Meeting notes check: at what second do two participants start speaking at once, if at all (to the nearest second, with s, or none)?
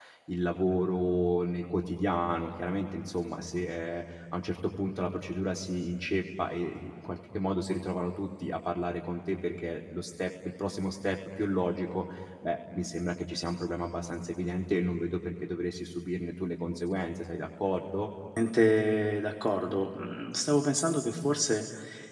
none